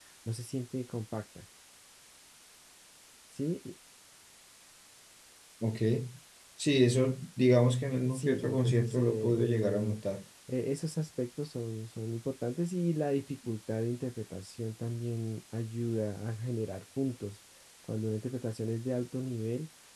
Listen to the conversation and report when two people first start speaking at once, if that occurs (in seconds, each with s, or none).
8.0 s